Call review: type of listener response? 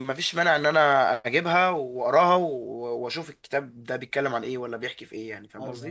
taking over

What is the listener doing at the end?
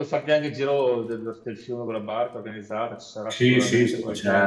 taking over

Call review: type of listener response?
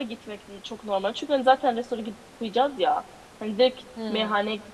listening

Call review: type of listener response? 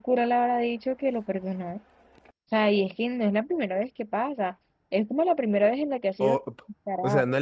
taking over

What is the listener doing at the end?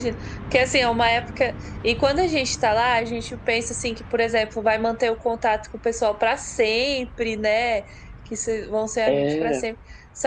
listening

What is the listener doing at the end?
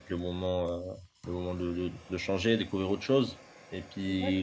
listening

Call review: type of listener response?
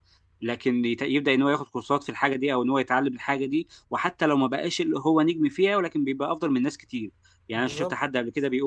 listening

